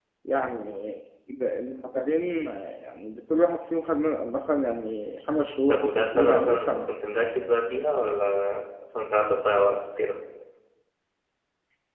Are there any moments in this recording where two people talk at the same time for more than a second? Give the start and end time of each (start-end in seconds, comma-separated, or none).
5.7-6.9